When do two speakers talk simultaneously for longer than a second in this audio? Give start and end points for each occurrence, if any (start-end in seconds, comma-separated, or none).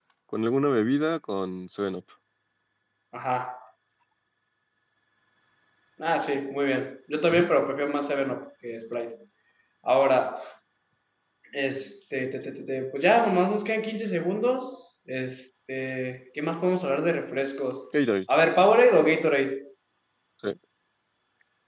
none